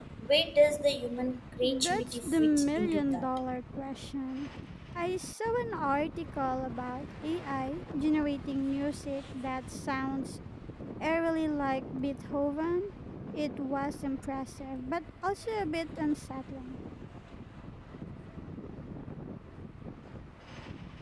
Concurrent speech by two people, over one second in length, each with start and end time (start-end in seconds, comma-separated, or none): 1.6-3.3